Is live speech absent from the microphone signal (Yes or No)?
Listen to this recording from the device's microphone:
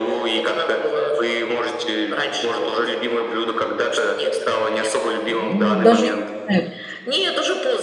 No